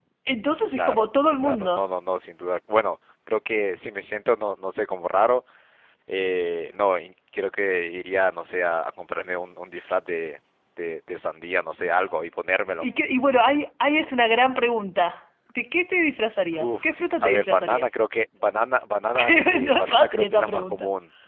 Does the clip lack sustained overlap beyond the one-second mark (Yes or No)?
No